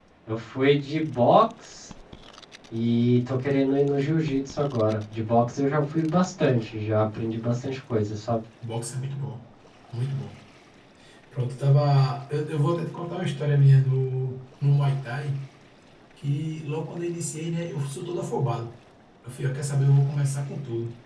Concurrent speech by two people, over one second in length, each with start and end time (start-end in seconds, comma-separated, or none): none